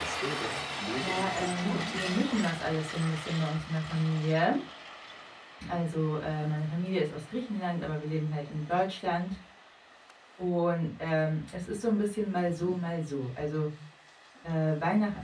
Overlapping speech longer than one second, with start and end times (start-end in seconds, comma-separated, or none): 1.0-2.5